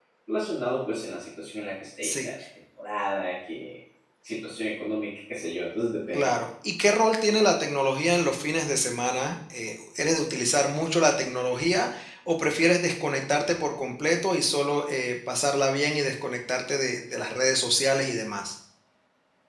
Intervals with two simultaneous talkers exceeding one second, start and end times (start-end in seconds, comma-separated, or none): none